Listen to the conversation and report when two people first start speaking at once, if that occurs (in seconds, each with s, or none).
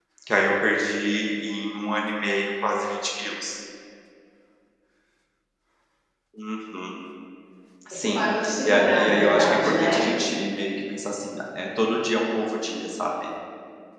7.9 s